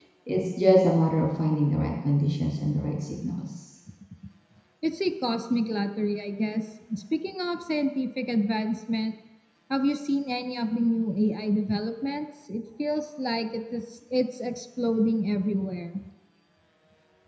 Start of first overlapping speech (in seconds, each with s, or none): none